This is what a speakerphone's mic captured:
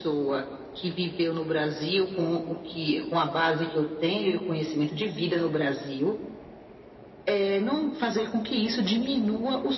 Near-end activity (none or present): none